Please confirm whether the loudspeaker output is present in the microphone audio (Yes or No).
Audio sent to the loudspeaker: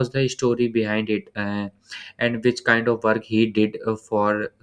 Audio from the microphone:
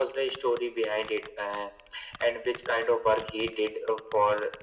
Yes